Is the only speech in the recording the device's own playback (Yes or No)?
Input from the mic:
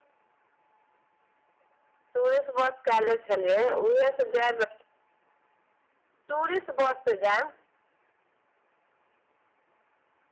Yes